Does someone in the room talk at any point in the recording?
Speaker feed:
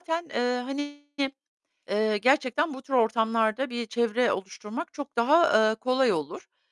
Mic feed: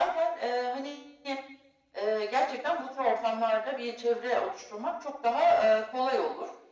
No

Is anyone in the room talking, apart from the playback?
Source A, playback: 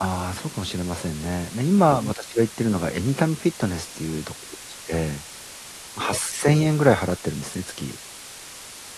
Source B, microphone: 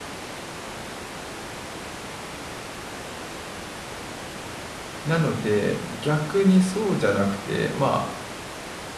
Yes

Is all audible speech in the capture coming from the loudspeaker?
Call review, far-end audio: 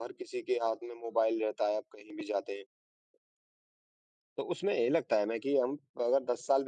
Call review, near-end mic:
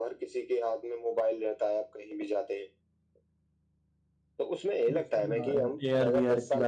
No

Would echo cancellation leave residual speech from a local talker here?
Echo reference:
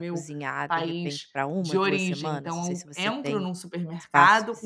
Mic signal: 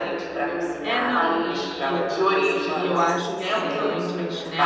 Yes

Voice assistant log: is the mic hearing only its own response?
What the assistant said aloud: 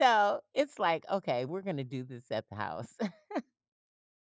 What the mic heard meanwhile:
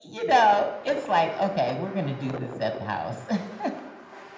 Yes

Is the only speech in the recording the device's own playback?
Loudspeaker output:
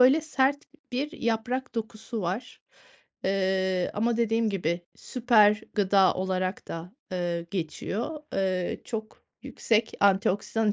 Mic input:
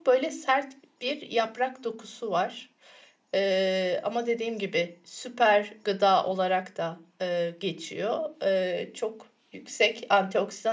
Yes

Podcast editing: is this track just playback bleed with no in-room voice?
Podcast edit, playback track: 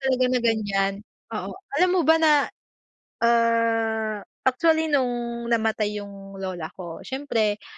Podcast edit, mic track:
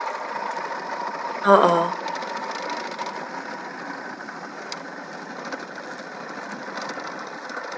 No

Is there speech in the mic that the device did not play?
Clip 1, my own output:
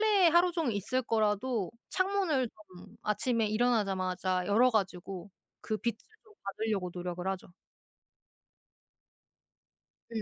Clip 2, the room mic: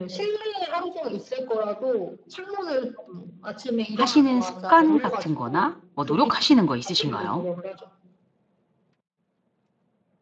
Yes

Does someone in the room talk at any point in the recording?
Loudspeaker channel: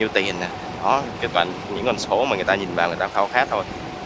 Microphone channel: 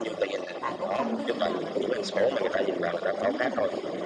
Yes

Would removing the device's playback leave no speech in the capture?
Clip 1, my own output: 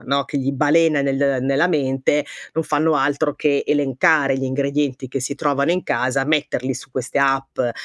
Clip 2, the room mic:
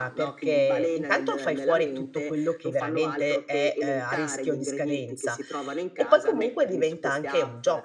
No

